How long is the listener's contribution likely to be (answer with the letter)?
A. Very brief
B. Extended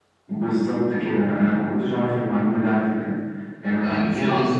B